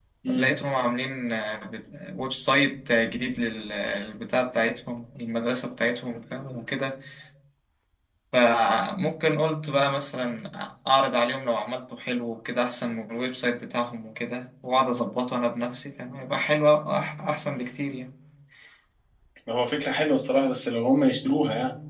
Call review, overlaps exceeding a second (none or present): none